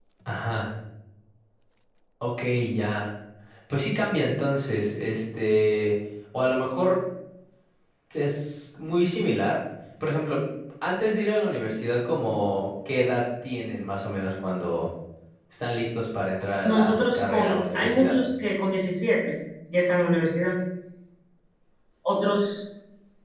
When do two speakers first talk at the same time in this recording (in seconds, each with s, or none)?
16.6 s